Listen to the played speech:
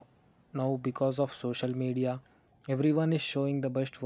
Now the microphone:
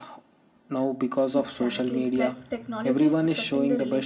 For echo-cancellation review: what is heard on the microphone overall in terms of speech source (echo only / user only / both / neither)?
both